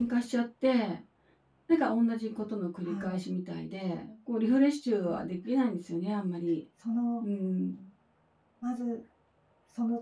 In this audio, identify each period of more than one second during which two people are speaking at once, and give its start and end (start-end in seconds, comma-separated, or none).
none